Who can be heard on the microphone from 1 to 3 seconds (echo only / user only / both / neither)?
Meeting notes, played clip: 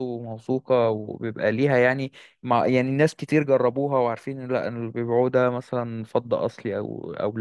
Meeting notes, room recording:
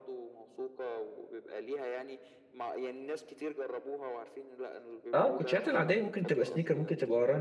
echo only